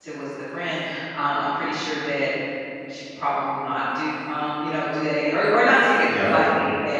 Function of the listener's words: listening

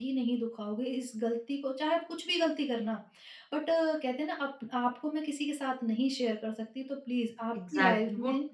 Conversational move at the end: taking over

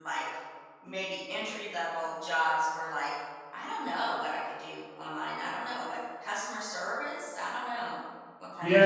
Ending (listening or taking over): taking over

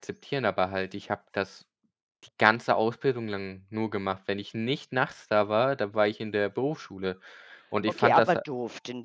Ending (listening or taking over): taking over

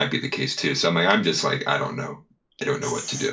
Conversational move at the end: taking over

